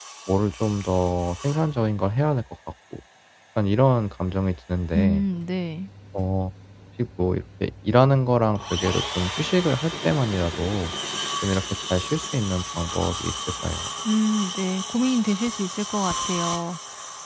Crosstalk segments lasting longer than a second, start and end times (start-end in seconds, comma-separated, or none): none